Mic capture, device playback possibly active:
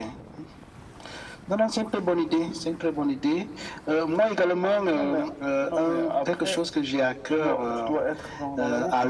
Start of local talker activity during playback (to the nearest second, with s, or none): none